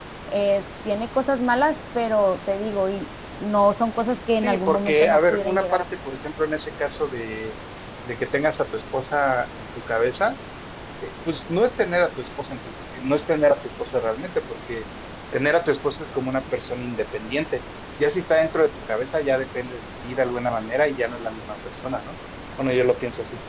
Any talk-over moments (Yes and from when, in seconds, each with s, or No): Yes, from 4.3 s